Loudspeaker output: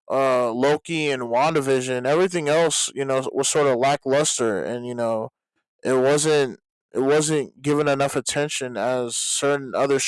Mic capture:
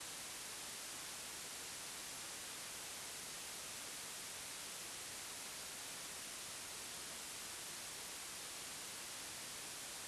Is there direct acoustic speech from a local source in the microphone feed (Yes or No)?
No